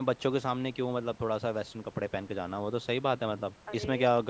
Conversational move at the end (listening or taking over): taking over